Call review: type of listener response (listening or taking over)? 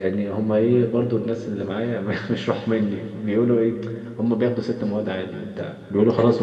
listening